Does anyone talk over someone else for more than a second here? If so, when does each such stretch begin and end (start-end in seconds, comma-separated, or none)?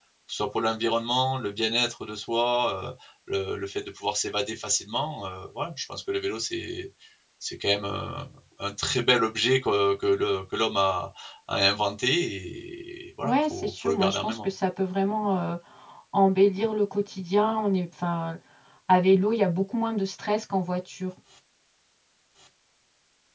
13.2-14.5